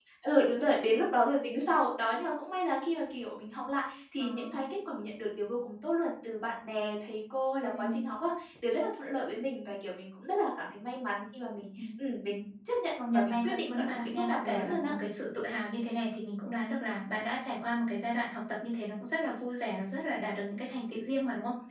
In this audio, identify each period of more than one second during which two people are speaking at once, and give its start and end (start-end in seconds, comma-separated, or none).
13.1-14.9